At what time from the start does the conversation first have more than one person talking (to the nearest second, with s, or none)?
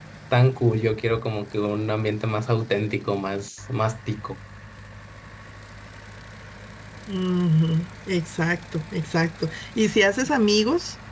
none